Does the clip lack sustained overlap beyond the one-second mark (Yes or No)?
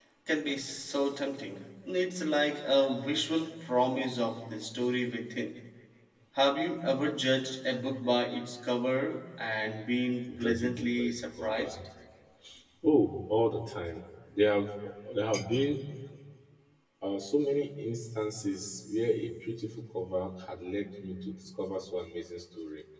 No